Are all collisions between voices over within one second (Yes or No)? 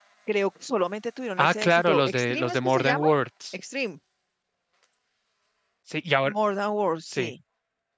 No